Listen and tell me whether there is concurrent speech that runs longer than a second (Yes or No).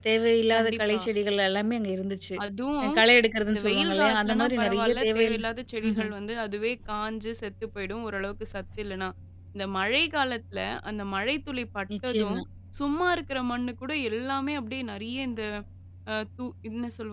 Yes